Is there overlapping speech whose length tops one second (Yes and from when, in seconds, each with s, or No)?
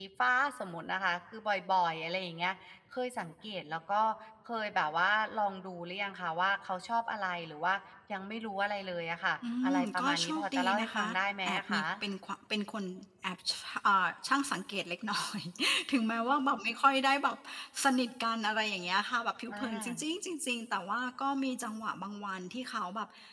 Yes, from 9.6 s